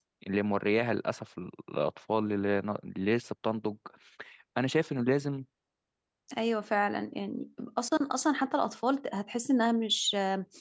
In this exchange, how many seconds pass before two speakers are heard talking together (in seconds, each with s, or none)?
none